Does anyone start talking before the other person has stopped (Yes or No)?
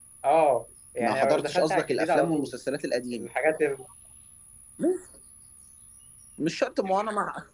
Yes